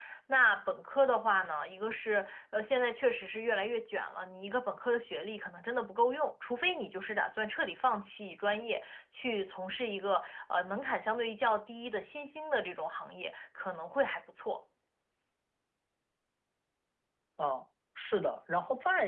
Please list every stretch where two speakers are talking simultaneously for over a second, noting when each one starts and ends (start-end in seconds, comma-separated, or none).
none